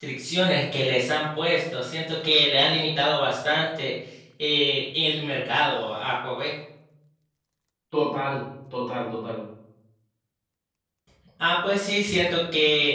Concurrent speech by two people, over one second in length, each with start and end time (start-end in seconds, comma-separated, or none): none